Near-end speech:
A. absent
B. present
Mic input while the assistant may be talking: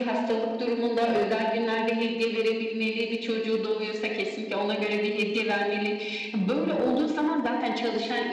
A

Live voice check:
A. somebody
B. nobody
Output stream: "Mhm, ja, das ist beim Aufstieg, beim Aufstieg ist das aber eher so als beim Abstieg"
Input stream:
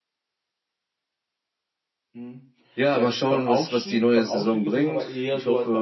A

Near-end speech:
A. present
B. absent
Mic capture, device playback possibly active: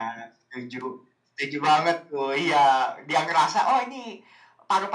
B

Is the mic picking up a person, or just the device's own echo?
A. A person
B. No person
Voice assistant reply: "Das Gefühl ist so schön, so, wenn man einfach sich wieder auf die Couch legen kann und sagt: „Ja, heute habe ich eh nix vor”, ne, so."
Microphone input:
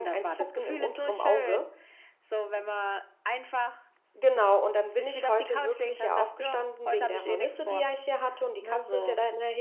A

